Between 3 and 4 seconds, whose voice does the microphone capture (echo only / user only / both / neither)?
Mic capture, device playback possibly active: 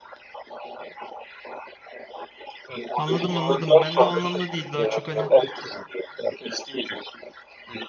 both